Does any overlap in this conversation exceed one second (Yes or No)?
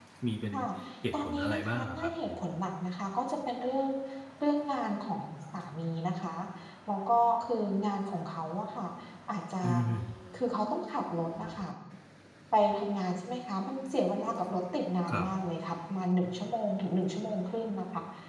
Yes